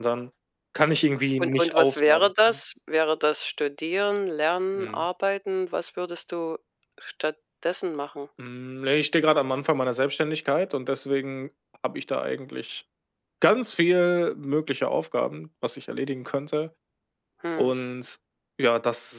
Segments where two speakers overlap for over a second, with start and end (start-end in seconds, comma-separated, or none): 1.4-2.6